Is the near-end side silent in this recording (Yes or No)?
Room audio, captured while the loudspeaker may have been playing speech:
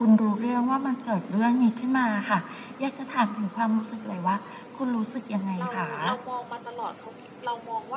No